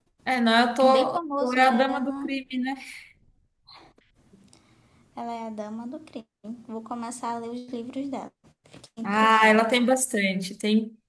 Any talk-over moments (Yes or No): Yes